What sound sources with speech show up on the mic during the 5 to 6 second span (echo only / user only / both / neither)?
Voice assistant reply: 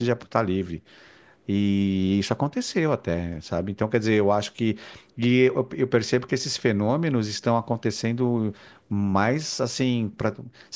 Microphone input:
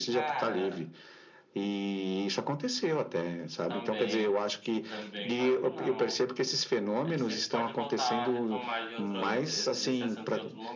both